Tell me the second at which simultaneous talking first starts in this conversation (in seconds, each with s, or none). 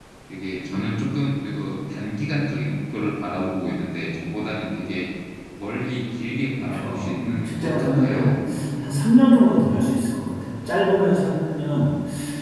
6.6 s